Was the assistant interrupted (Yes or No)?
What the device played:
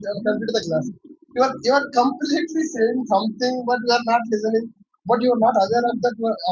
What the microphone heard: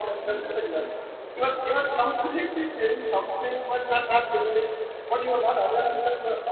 No